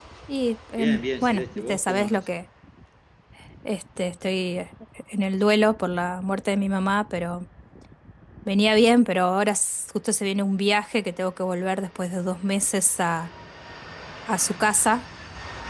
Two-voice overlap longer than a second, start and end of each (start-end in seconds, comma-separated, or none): 0.8-2.3